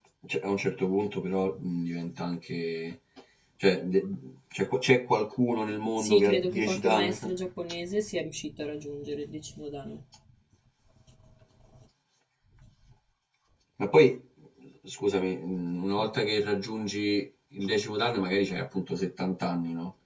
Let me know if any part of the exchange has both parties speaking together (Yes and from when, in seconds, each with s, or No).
Yes, from 6.0 s